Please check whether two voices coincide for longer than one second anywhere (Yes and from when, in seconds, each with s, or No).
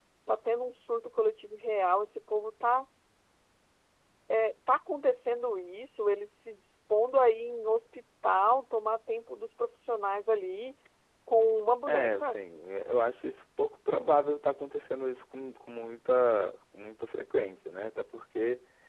No